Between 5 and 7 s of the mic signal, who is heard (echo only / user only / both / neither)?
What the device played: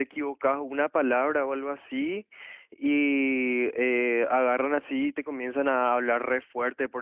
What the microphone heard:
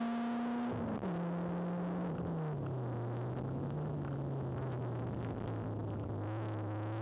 neither